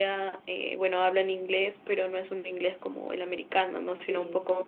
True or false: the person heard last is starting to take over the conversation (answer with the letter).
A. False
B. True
A